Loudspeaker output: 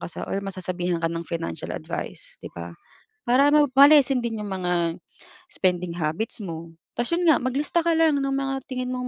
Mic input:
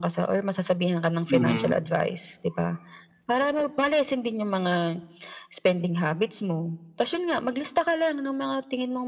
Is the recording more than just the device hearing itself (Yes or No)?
Yes